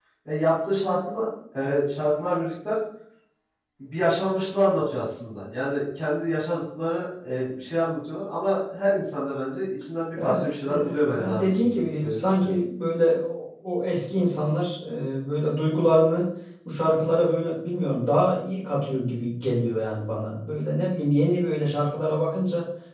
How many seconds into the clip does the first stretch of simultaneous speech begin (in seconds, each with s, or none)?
10.2 s